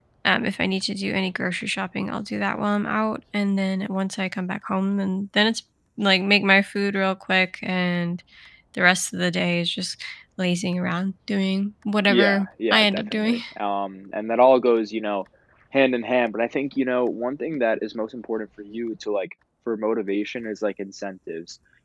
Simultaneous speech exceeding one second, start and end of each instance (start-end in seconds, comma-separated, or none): 12.1-13.4